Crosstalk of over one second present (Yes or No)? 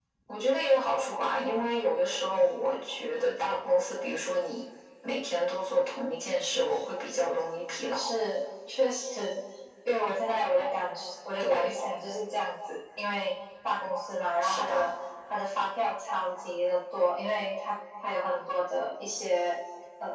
No